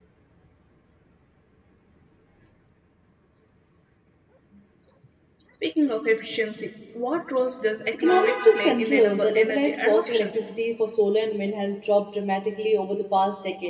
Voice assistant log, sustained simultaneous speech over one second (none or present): present